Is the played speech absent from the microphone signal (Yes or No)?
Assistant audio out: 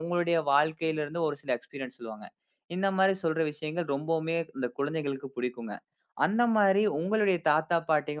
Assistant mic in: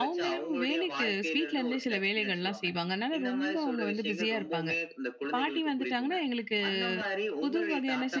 No